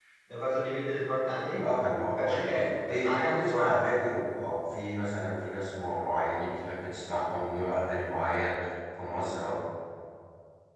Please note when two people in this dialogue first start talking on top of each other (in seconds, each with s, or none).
1.6 s